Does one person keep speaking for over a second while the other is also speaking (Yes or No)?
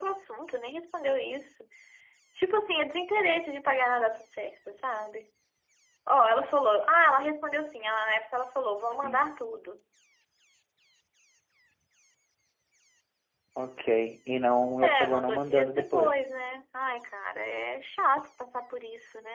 Yes